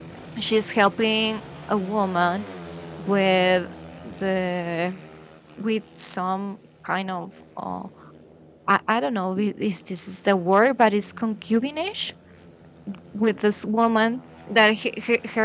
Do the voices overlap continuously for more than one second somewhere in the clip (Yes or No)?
No